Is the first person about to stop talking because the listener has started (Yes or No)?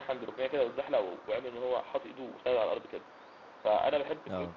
No